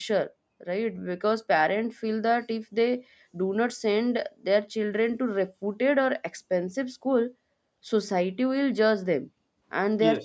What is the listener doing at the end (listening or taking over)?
listening